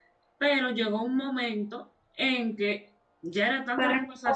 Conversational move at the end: taking over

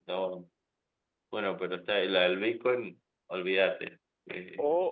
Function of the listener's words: taking over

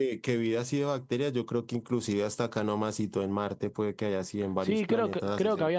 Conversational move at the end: taking over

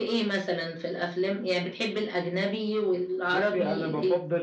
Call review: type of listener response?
taking over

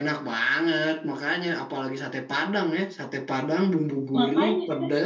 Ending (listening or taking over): listening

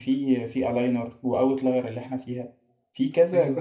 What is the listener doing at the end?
listening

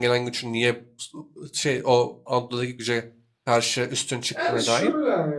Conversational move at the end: taking over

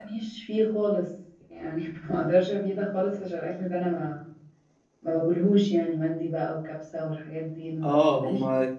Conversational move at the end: taking over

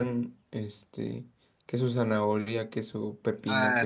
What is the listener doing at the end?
taking over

